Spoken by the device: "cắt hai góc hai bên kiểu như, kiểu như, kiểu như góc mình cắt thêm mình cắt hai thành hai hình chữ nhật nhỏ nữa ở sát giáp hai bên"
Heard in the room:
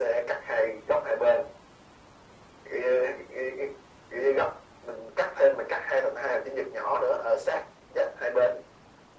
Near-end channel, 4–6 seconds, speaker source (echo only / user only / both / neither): echo only